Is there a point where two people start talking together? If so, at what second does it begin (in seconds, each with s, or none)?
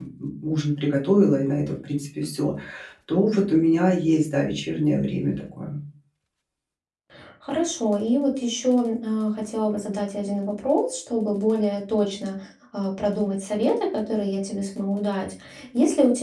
none